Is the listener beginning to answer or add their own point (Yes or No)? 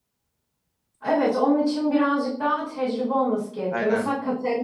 No